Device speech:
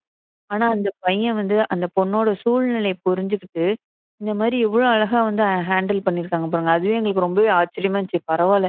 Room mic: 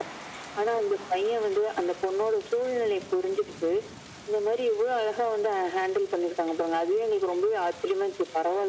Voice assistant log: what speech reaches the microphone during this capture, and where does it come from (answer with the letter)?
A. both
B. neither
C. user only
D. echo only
D